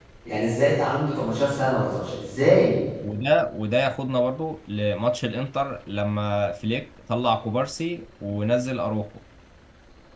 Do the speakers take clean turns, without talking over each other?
Yes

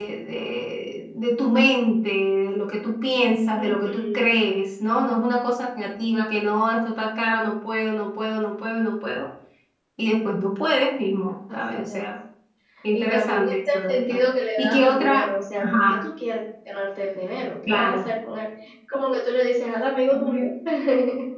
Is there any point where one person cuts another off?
Yes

